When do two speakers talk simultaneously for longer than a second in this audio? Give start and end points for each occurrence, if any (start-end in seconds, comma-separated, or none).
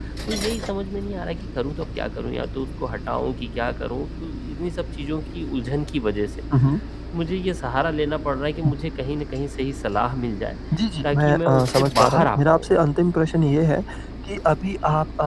11.1-12.7